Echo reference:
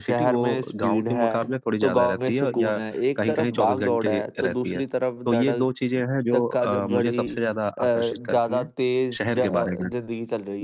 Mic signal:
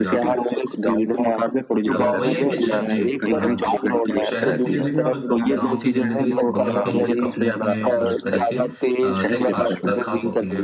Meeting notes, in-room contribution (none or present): present